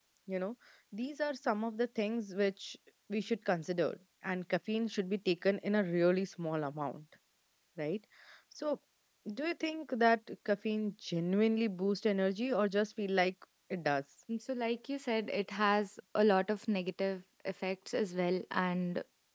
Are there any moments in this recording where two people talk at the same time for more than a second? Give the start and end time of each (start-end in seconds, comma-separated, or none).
none